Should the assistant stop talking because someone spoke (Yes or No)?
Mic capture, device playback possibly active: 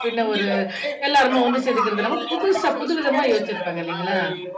Yes